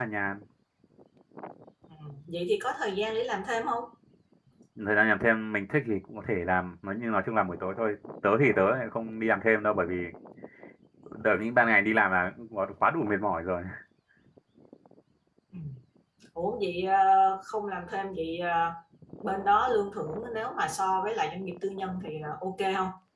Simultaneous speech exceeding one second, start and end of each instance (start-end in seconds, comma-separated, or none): none